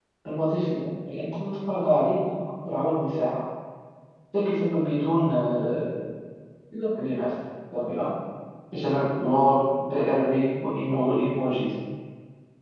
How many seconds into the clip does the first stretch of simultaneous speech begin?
none

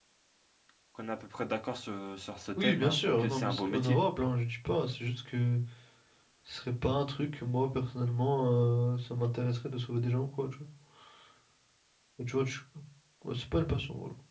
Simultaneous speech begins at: 2.6 s

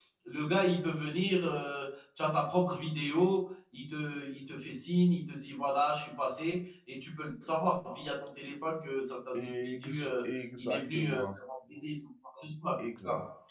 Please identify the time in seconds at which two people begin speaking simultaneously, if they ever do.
9.3 s

